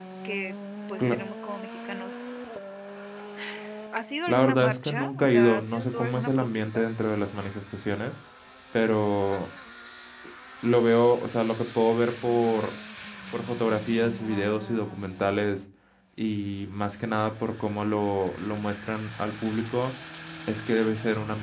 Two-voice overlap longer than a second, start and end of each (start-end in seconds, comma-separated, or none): 4.3-6.8